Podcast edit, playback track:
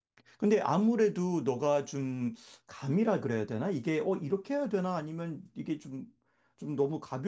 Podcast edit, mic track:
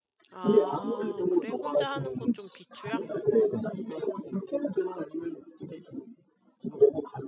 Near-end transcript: 아, 그래? 혼자 하는 건 좀 비추야?

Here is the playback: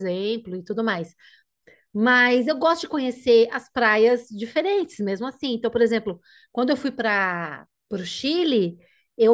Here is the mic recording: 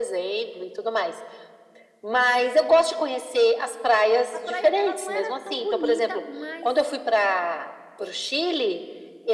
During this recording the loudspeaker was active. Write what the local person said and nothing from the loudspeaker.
A praia, ela não era tão bonita, mas

